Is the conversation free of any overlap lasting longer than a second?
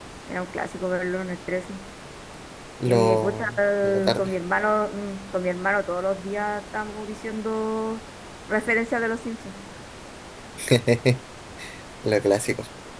No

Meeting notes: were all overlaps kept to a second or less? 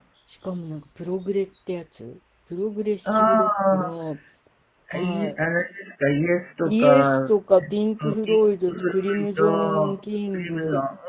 No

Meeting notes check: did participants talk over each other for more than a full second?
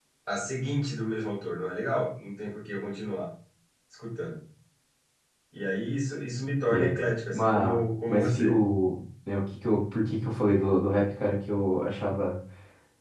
Yes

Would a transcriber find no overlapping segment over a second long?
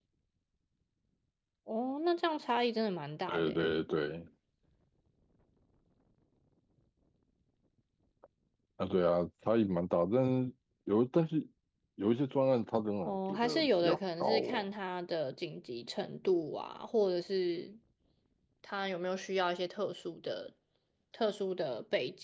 No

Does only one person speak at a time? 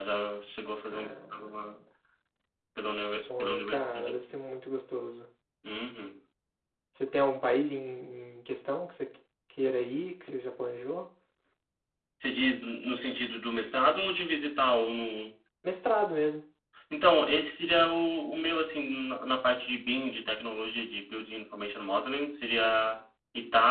No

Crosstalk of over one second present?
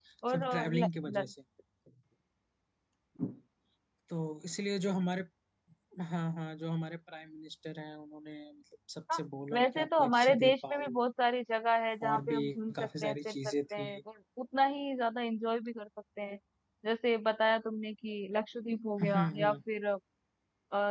Yes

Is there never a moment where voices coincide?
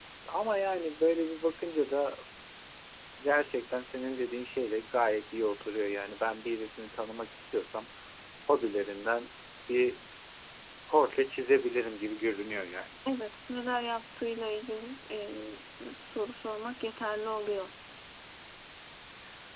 Yes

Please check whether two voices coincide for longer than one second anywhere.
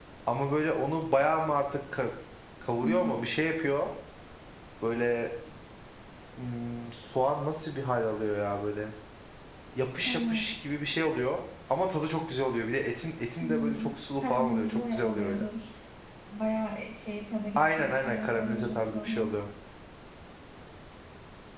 Yes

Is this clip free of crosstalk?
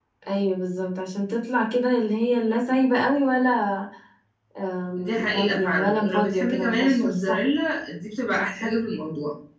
No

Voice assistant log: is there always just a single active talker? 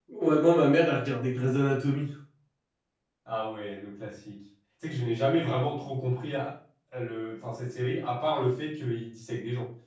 Yes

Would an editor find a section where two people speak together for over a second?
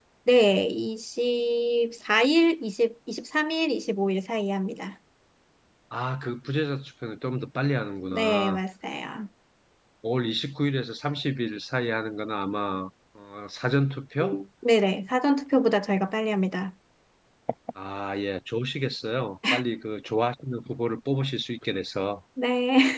No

